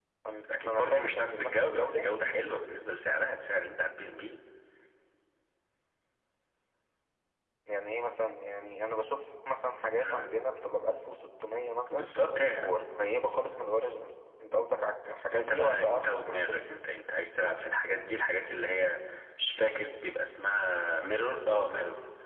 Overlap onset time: 1 s

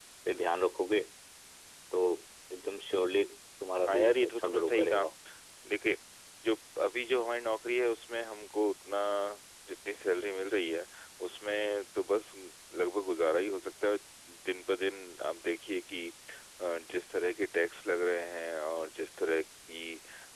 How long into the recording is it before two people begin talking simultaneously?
4 s

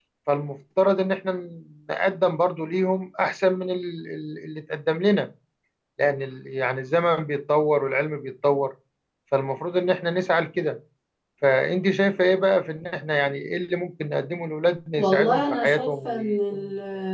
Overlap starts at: 15 s

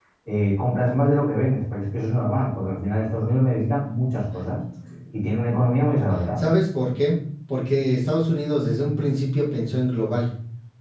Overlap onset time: none

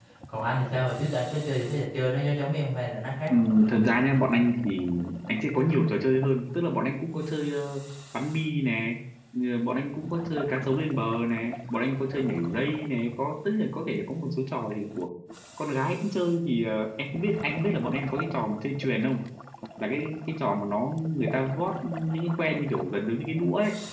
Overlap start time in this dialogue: none

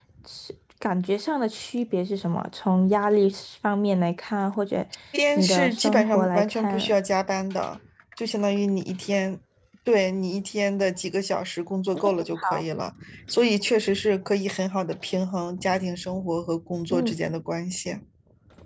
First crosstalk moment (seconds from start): 5 s

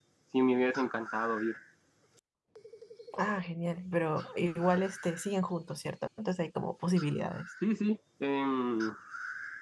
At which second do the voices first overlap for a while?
none

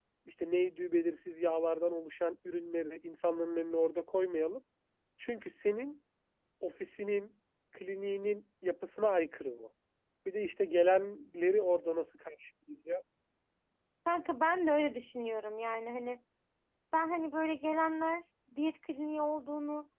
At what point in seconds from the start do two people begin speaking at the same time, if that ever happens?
none

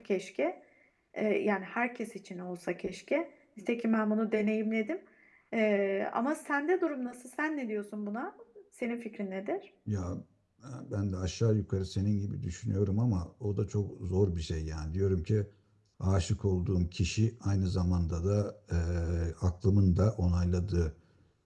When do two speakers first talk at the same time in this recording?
none

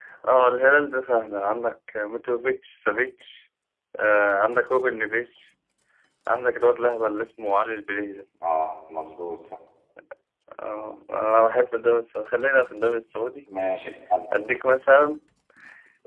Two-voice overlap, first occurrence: none

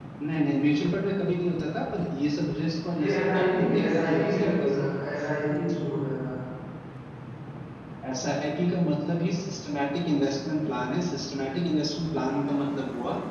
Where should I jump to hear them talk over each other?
3 s

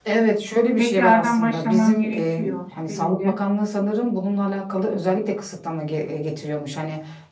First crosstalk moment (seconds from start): 1 s

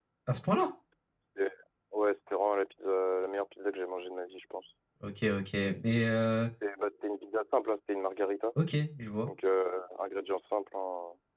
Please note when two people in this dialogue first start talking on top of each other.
none

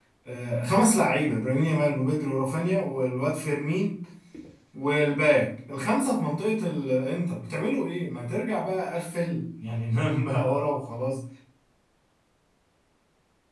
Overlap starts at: none

